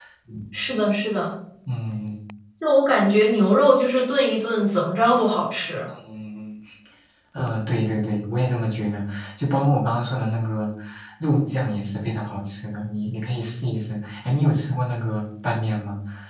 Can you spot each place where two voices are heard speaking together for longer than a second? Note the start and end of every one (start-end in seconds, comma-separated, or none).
none